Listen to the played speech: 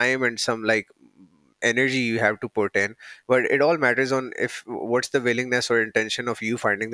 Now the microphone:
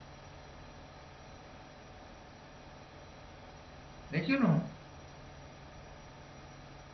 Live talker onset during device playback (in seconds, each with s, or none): 4.1 s